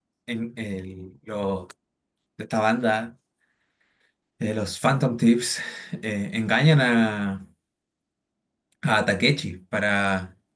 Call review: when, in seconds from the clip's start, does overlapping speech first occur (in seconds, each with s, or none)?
none